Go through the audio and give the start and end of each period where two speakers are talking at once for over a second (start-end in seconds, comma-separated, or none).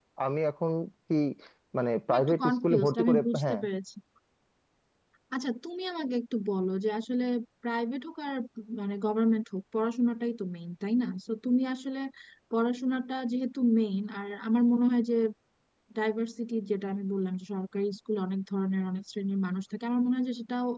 2.1-3.6